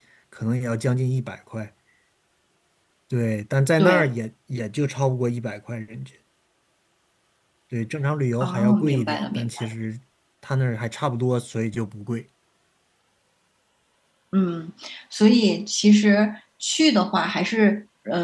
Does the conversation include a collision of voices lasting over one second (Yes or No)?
Yes